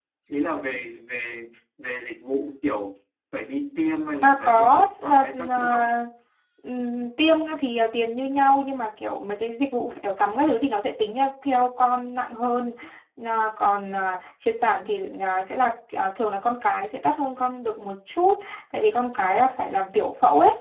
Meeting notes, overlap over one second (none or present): present